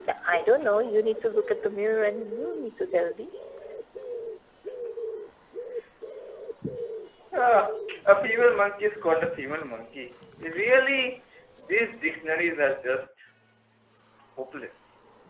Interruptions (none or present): none